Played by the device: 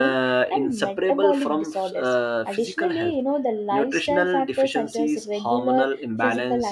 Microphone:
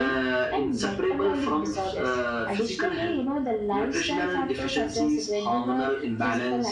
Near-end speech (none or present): none